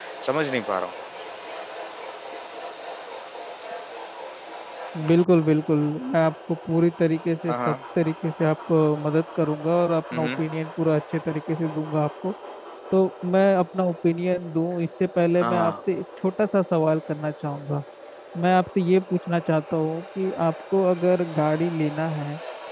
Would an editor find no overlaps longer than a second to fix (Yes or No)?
Yes